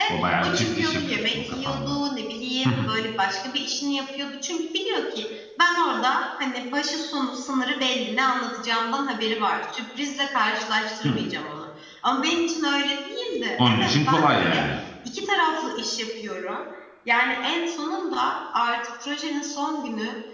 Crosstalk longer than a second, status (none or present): present